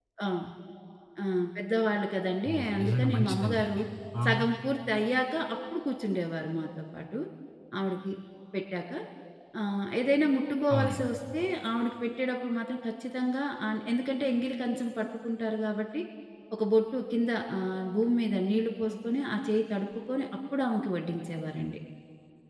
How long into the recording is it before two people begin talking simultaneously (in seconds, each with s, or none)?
2.5 s